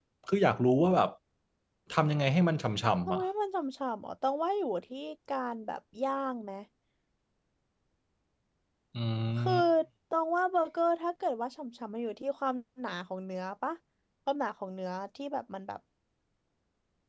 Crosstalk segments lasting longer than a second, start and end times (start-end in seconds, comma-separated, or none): none